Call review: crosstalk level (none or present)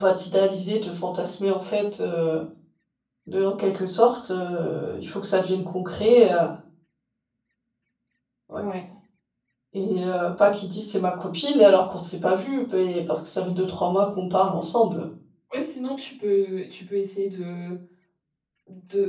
none